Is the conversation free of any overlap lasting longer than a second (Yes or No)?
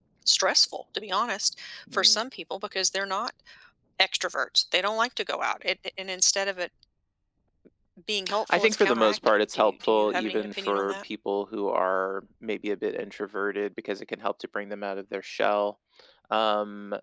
No